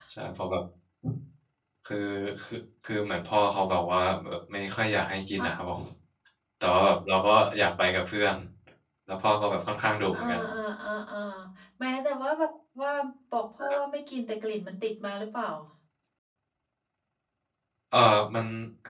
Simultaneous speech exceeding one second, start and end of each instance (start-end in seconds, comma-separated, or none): none